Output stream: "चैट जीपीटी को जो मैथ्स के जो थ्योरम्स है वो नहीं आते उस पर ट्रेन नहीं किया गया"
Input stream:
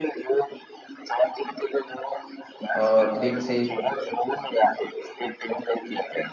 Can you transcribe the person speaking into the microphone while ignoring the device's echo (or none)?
और डीप सीक